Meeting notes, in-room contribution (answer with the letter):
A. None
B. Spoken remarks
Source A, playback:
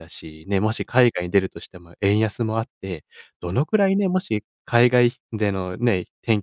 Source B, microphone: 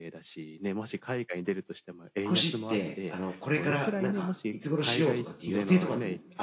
B